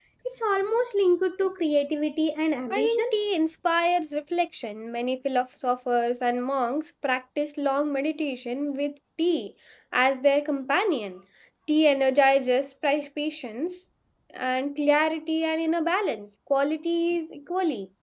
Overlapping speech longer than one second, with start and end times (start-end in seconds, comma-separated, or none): none